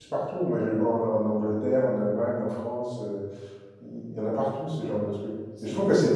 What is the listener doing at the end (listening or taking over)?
listening